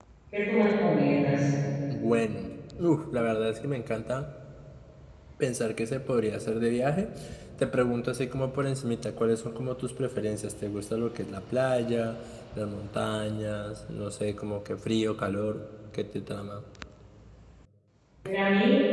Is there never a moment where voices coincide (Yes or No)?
Yes